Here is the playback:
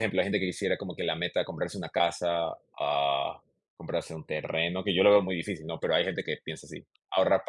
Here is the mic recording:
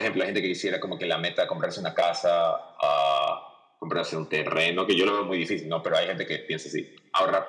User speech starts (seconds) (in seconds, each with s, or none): none